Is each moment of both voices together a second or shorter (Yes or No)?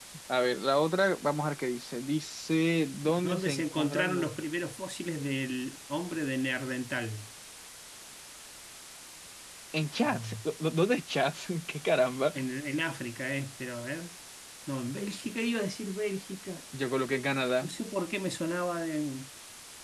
No